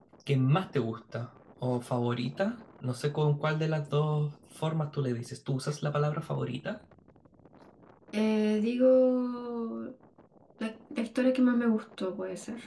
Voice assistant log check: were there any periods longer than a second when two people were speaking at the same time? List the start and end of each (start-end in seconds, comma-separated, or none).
none